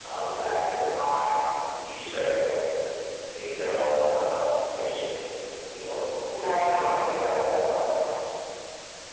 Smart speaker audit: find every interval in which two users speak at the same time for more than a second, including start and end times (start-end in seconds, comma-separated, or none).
6.3-7.7